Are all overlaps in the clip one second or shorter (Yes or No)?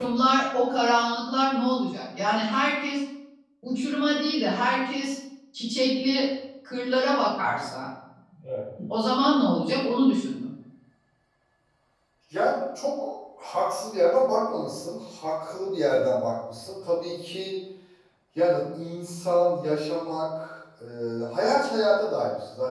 Yes